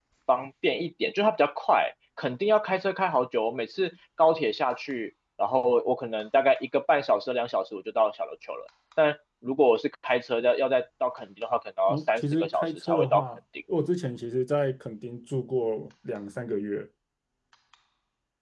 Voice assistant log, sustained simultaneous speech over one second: present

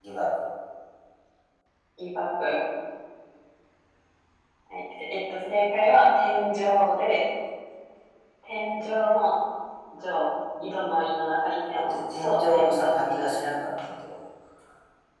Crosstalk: present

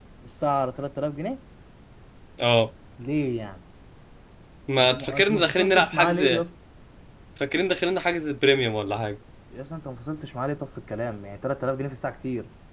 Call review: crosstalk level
present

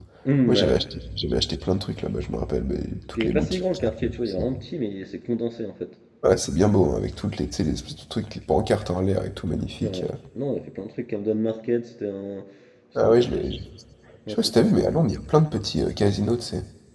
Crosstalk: present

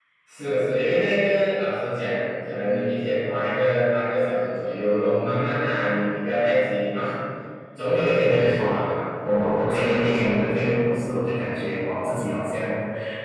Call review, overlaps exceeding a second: none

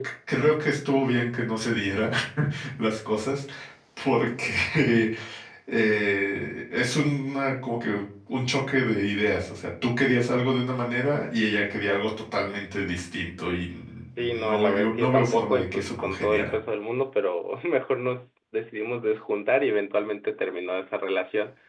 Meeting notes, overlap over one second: present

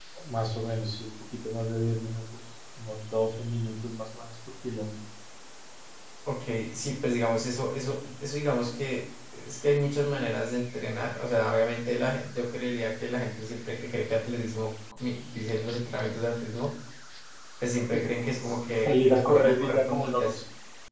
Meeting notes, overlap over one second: present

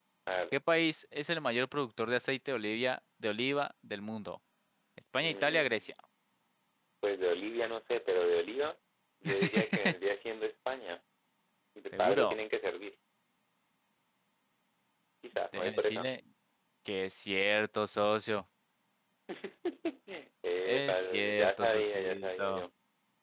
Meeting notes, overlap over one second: present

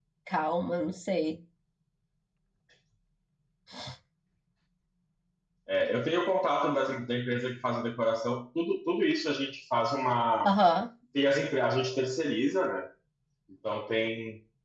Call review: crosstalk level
none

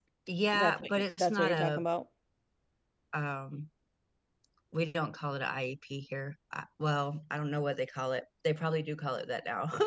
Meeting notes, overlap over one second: present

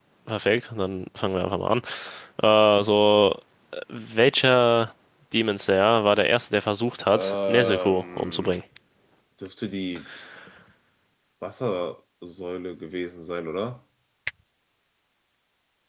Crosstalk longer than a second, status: present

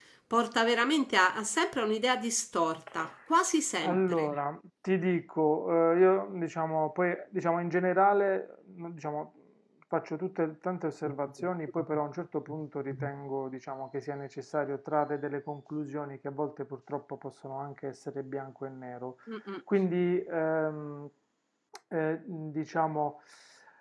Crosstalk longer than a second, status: none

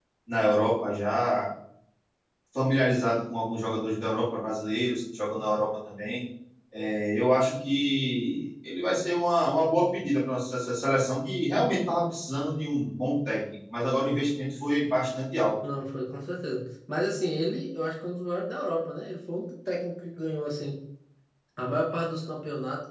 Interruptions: none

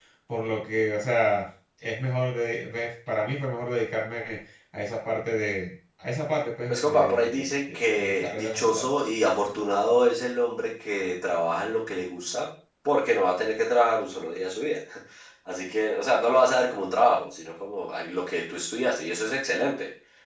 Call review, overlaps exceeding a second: present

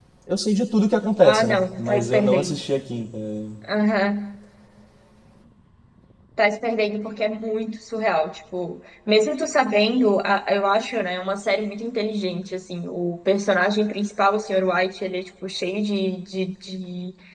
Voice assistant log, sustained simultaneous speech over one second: present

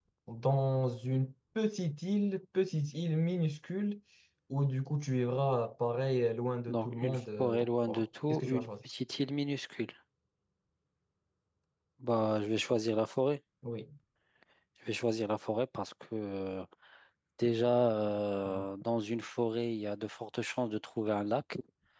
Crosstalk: present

